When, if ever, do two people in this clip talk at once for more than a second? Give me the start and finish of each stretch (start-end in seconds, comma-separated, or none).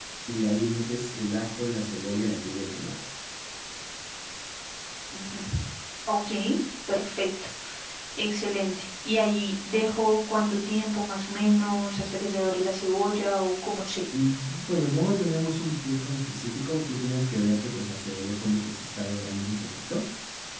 none